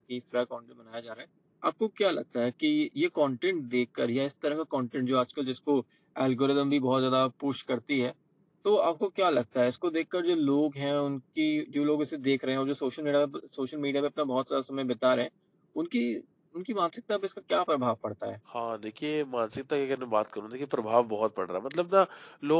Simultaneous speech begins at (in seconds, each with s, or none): none